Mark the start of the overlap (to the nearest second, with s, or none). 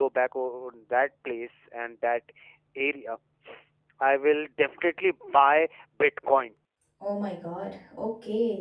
none